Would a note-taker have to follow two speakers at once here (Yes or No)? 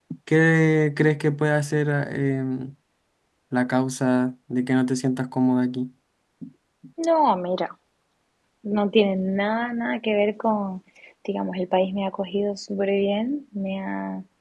No